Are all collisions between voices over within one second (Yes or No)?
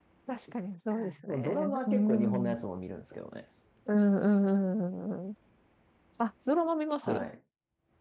No